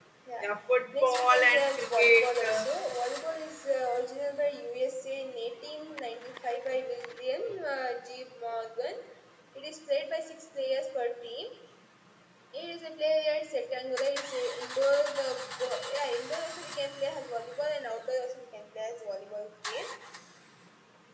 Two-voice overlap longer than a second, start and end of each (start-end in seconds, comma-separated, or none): 1.0-2.7